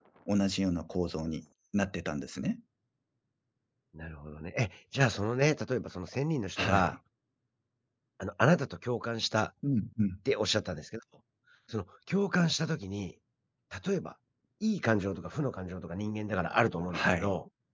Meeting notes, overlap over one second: none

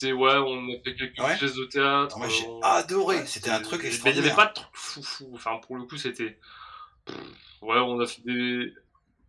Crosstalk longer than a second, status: present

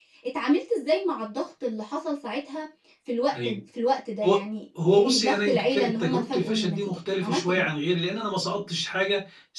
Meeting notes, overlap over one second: present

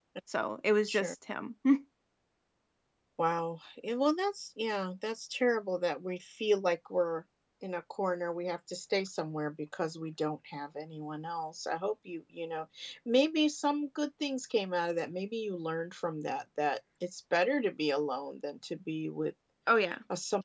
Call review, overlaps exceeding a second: none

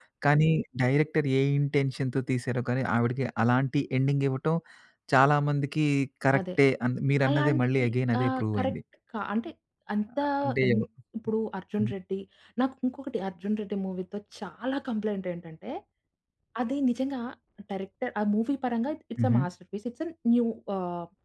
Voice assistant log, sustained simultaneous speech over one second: present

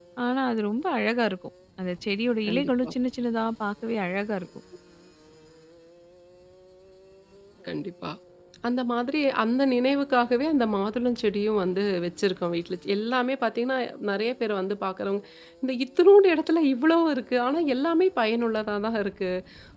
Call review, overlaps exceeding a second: none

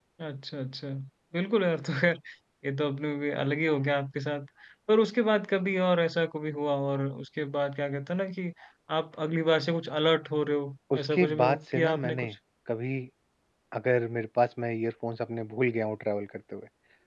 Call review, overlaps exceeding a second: present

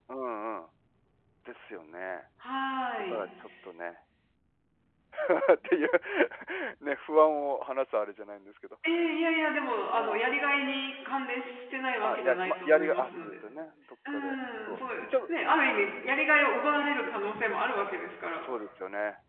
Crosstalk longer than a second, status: present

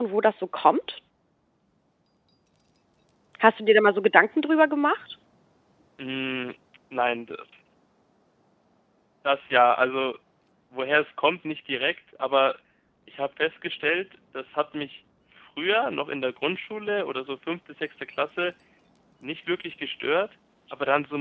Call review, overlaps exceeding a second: none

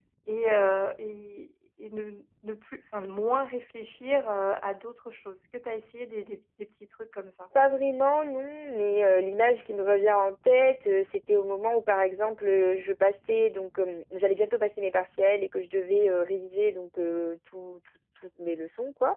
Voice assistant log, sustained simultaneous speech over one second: none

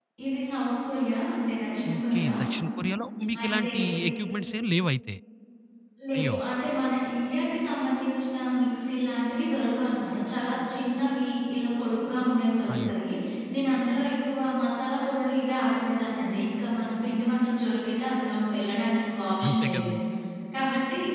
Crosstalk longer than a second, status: none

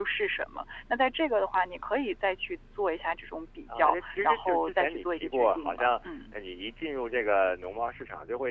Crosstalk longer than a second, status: present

